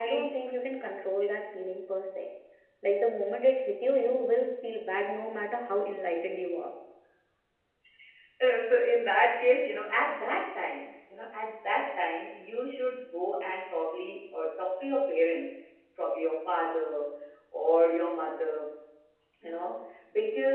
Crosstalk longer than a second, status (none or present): none